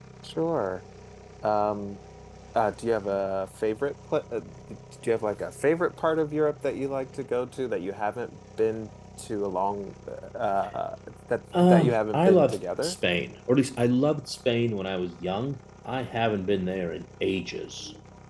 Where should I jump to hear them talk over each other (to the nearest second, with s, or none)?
12 s